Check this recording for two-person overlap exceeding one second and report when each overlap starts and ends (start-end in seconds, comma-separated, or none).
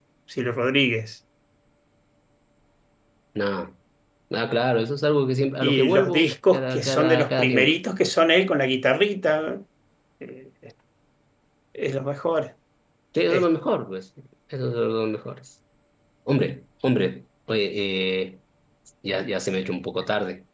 5.6-7.7